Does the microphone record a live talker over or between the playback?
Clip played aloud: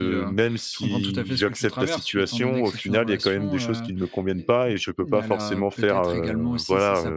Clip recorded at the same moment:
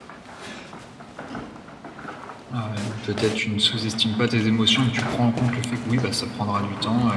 Yes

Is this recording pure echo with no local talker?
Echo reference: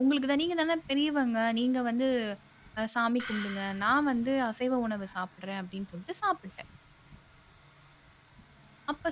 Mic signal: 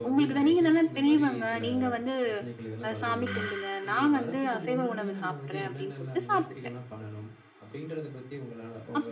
No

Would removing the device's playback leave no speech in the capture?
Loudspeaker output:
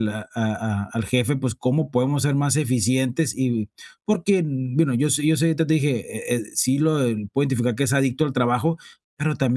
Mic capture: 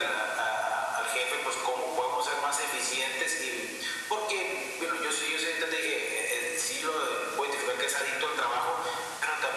Yes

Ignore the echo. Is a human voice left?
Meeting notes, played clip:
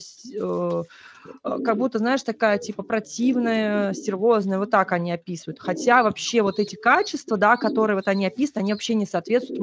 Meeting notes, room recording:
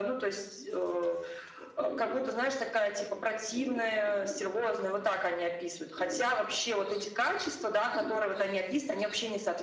No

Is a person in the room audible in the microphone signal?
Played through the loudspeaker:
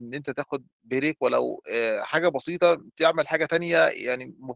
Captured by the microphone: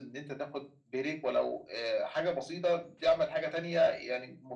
No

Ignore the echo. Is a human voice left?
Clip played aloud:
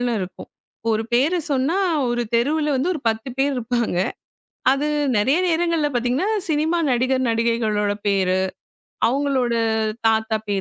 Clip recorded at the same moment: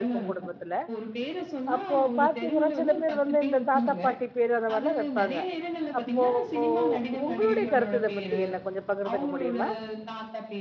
Yes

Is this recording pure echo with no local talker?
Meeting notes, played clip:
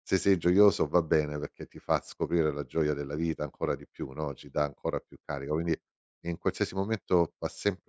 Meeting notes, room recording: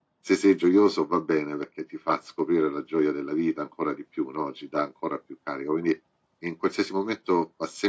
Yes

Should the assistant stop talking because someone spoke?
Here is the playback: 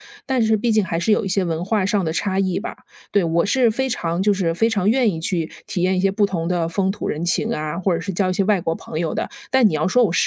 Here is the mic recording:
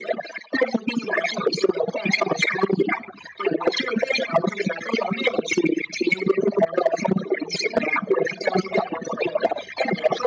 No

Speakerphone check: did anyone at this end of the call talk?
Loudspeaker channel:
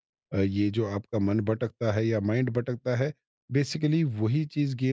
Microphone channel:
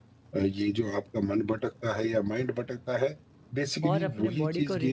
Yes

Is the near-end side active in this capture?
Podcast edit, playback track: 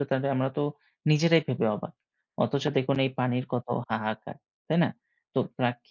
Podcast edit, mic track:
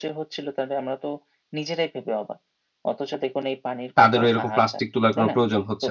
Yes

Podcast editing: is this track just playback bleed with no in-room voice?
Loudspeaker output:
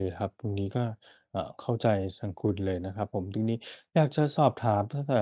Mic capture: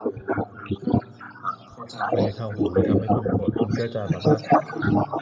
No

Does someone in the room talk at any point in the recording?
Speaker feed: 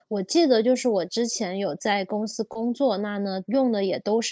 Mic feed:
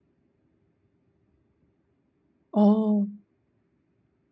Yes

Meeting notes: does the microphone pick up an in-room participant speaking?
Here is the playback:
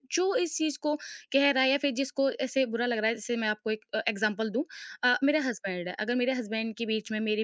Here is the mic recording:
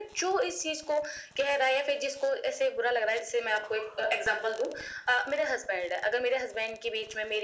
No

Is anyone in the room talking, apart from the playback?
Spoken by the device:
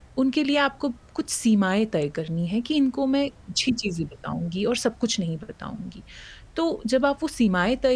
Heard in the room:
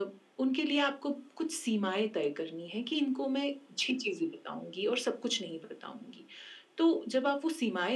No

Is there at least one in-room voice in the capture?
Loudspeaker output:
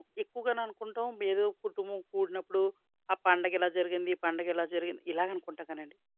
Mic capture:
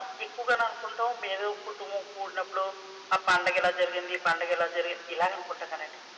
No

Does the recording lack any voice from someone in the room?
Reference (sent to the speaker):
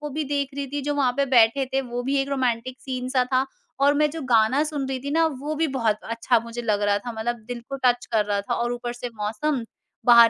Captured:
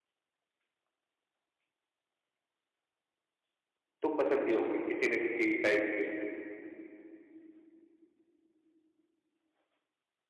No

